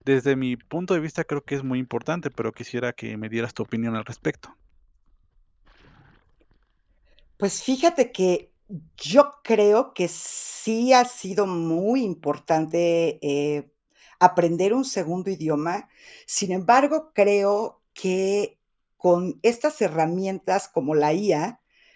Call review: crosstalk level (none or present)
none